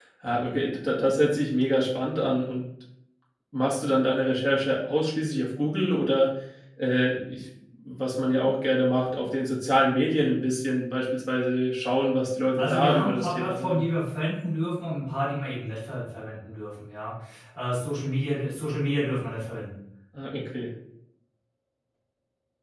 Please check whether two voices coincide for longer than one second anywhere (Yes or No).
Yes